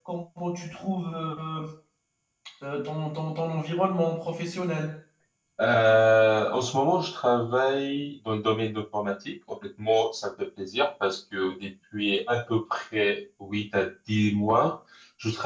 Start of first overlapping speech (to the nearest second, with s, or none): none